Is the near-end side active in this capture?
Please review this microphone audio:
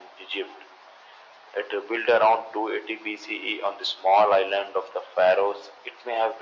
No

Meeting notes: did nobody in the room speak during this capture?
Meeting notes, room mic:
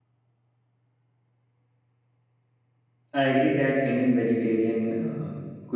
No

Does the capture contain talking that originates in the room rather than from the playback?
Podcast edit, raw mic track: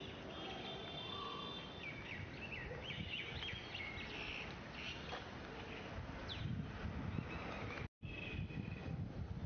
No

